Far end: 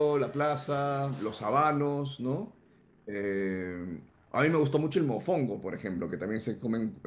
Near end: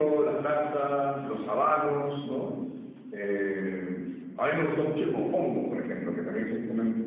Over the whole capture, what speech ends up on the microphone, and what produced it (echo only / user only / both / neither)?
echo only